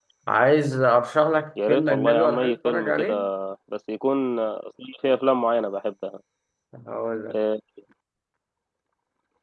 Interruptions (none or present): present